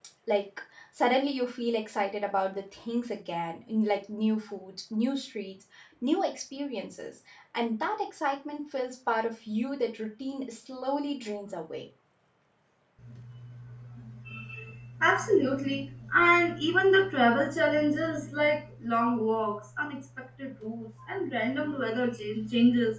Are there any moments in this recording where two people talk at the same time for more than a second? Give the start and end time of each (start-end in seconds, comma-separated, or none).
none